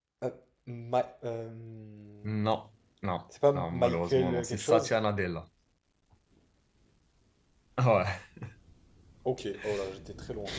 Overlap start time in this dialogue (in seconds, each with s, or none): 3.4 s